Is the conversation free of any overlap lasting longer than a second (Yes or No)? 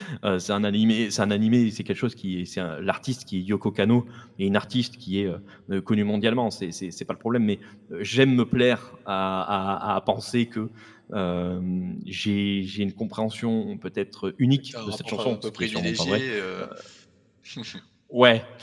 No